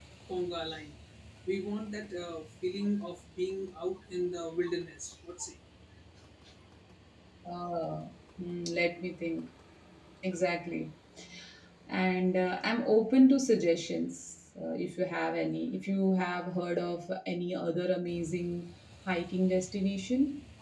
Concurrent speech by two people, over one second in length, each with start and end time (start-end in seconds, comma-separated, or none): none